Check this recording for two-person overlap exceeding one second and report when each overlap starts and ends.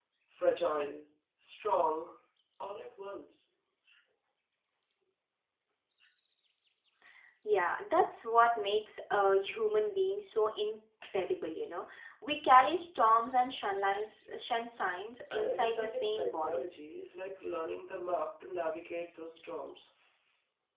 15.3-16.6

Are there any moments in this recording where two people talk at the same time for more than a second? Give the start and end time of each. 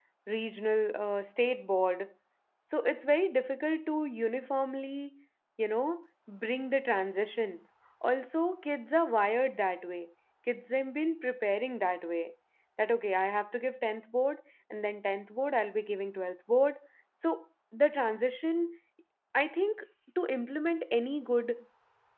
none

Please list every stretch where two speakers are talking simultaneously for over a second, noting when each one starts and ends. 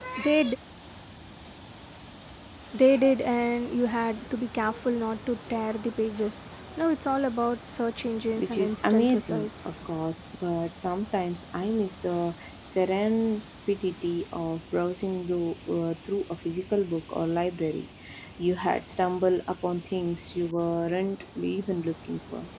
8.4-9.7

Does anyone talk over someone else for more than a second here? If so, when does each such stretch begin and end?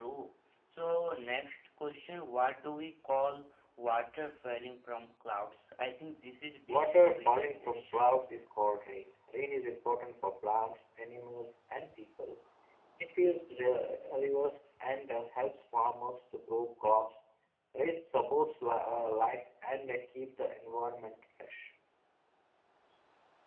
6.7-8.1

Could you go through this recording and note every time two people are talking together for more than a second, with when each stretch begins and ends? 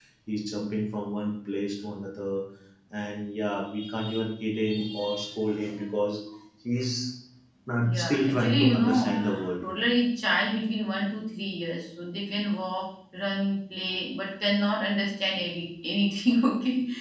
7.8-9.1

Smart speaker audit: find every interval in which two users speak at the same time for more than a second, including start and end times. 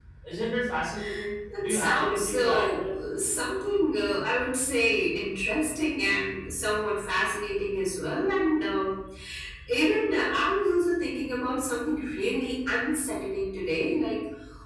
1.6-2.9

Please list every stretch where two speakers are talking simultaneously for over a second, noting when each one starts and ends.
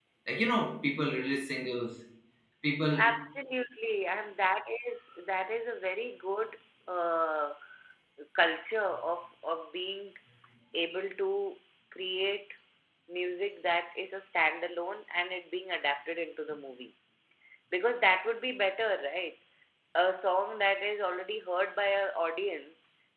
none

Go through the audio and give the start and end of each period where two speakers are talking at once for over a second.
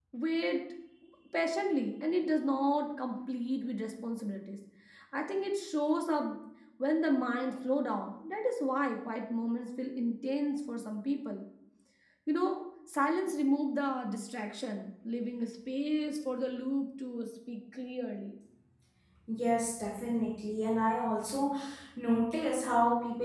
none

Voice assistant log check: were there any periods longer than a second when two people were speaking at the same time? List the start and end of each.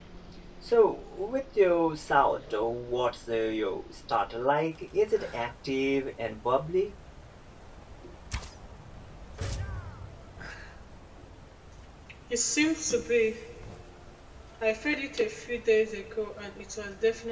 none

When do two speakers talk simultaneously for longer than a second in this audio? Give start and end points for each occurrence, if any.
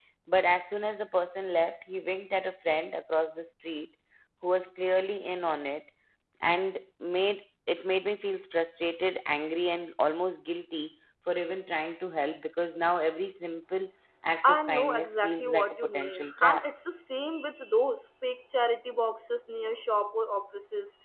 14.4-16.6

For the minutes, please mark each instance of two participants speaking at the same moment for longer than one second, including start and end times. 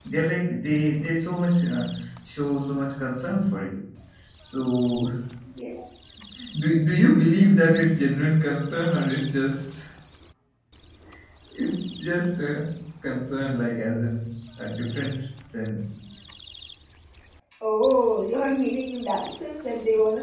none

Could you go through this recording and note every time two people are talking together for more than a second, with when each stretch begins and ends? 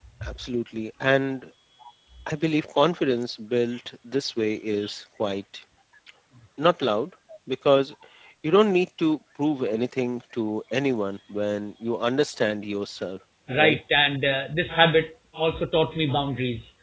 none

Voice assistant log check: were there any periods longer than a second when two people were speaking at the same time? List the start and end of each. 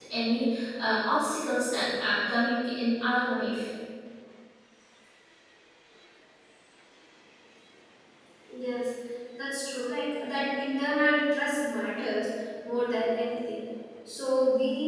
none

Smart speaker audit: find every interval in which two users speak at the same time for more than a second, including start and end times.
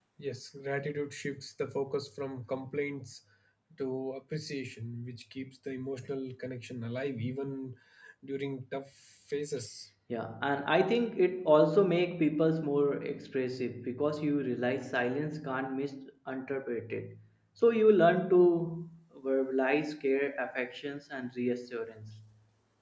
none

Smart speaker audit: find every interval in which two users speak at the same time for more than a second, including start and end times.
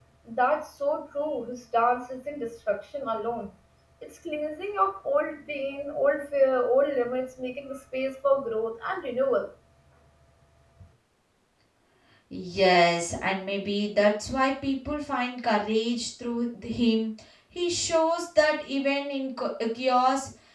none

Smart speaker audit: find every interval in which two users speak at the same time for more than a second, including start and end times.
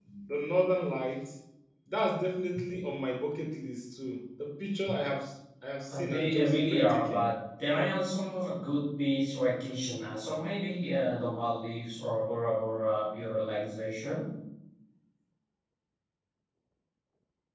5.9-7.3

